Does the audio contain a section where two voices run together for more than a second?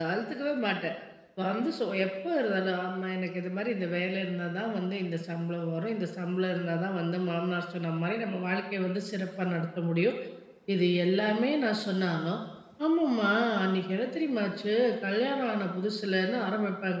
No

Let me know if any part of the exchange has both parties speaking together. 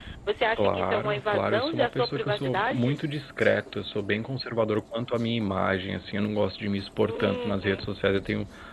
Yes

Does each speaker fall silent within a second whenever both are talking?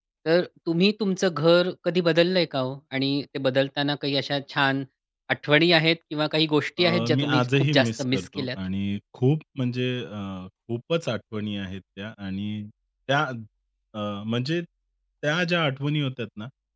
No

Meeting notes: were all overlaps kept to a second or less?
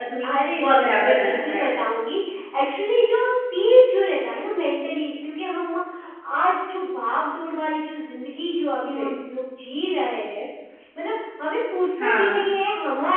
No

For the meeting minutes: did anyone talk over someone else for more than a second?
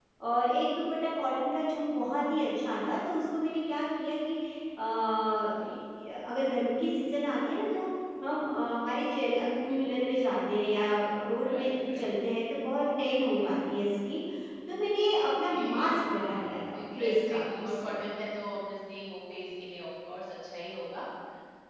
Yes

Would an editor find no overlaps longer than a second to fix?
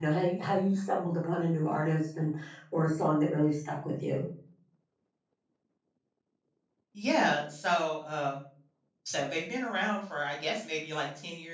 Yes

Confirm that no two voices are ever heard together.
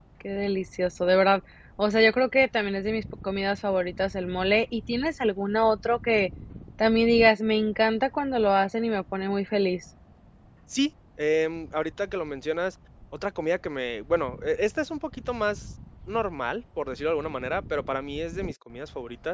Yes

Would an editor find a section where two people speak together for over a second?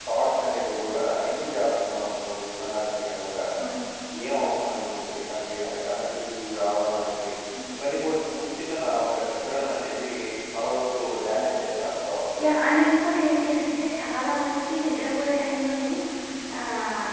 No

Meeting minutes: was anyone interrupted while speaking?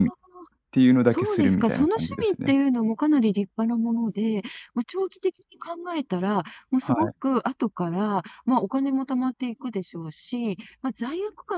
Yes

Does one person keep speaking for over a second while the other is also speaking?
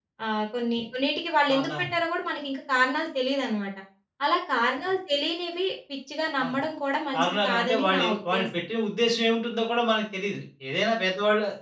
Yes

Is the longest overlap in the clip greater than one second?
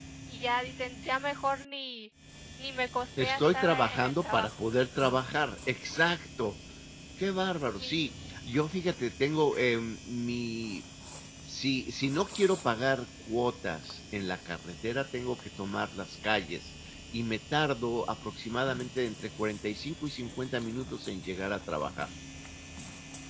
Yes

